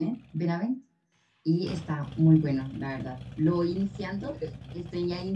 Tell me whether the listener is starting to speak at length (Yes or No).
No